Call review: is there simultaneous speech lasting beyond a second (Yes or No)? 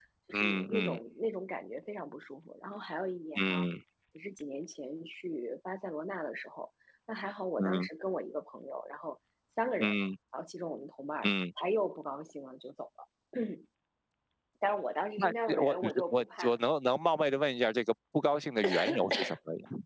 Yes